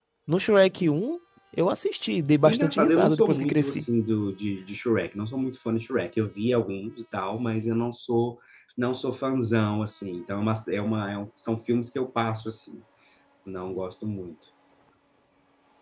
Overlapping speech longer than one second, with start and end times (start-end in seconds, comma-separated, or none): 2.4-3.8